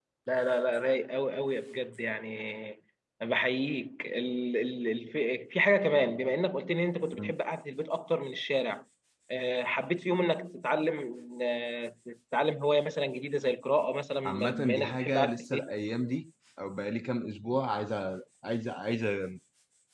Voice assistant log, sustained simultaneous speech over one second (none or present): present